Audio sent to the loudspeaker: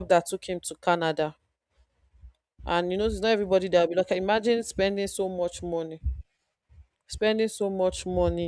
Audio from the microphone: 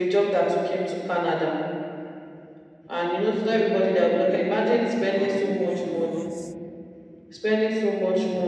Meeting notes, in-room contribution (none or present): present